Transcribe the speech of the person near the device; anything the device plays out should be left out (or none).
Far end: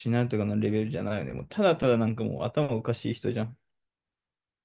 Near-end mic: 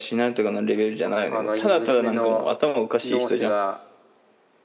ああの、娘のノースが